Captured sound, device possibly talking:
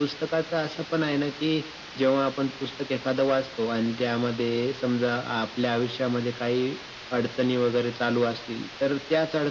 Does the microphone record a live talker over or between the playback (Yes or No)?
No